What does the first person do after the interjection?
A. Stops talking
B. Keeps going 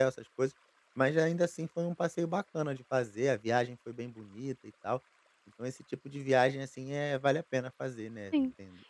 A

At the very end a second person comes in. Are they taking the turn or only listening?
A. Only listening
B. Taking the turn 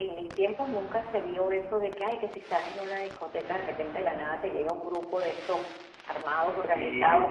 A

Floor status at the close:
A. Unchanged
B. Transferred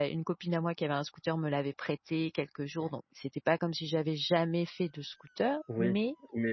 B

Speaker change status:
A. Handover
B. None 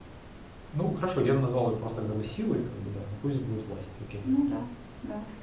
A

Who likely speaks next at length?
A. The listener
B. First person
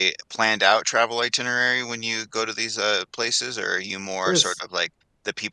B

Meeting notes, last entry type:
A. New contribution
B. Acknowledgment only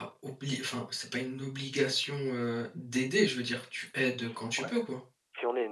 A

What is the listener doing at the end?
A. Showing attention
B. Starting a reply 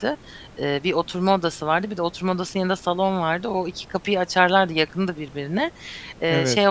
A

